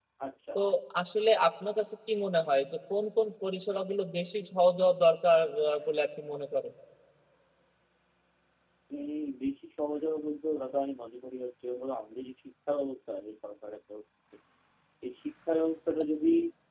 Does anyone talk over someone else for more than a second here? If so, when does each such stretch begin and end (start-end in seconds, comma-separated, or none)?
none